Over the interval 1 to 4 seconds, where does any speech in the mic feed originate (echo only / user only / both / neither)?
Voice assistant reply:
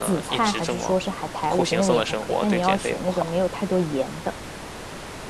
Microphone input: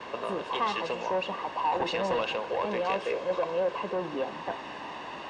echo only